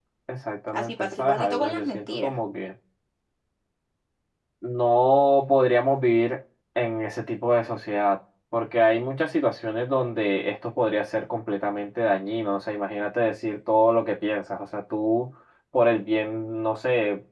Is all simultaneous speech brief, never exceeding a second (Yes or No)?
No